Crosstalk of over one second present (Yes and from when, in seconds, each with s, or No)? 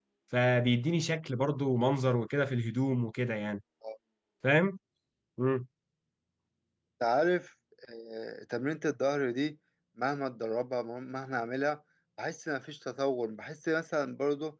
No